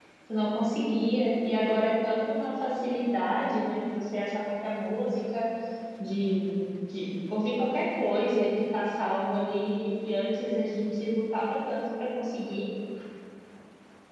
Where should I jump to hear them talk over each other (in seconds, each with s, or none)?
none